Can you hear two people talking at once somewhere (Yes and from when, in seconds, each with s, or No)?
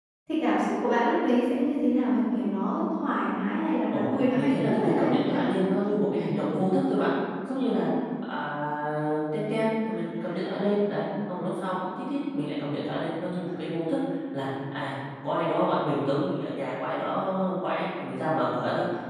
Yes, from 3.9 s